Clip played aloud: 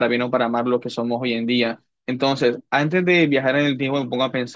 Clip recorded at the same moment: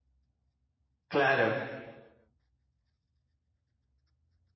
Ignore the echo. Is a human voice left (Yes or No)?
Yes